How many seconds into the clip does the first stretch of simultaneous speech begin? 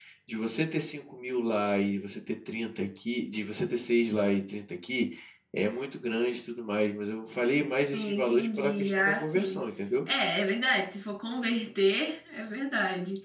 7.9 s

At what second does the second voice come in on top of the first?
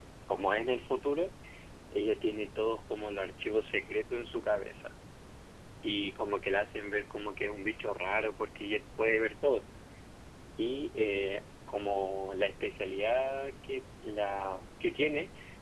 none

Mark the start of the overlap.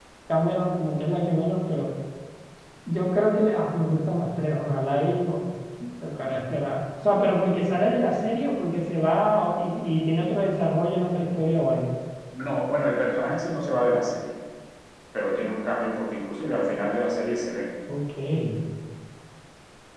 none

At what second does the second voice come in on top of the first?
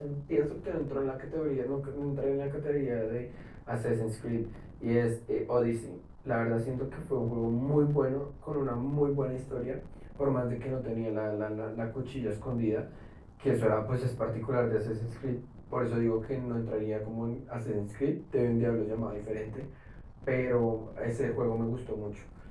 none

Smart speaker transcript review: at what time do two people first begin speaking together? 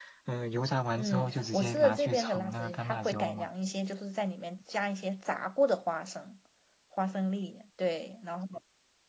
1.0 s

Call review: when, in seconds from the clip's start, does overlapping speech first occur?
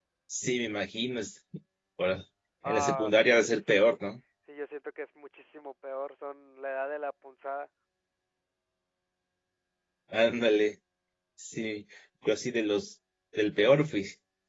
2.7 s

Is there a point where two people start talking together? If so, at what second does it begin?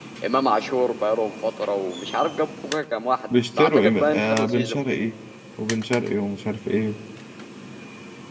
3.3 s

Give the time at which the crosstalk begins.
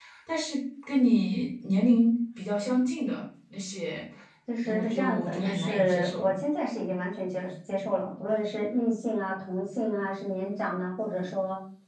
4.7 s

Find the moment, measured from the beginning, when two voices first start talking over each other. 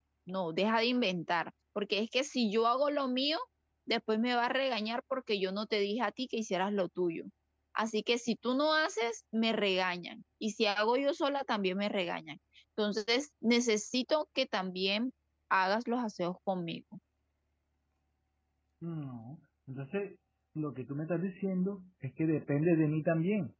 none

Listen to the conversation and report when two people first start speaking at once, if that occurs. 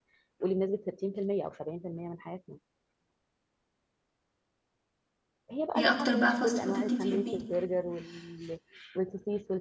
5.8 s

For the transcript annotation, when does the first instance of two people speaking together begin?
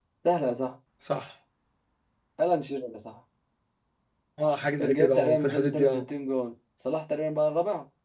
4.8 s

